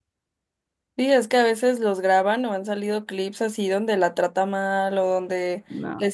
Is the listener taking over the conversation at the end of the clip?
No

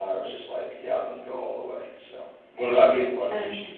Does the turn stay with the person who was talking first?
No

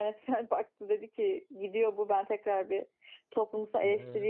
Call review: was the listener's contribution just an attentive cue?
Yes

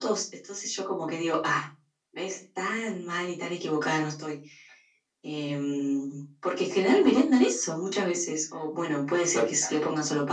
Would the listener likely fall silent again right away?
Yes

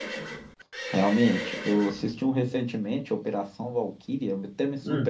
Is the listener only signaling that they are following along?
Yes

